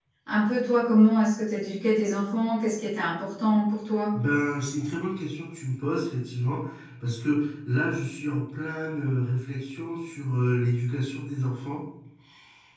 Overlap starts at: none

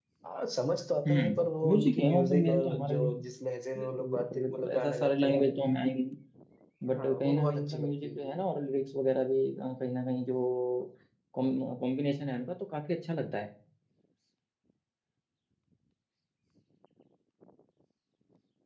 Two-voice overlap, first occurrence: 1 s

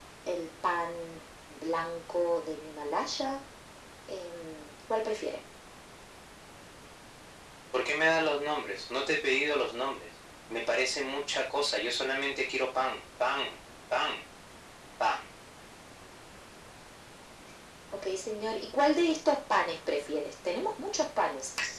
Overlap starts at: none

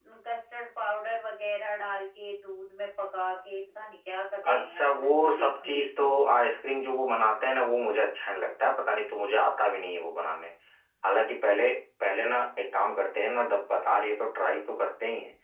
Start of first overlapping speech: 4 s

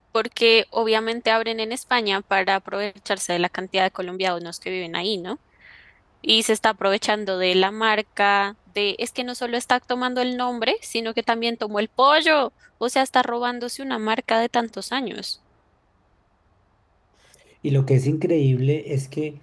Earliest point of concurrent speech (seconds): none

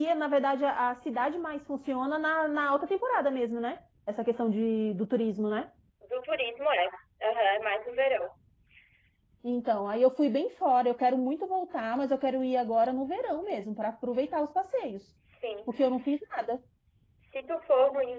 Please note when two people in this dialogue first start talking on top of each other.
none

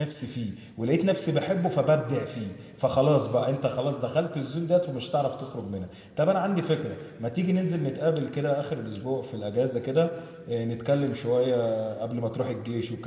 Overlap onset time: none

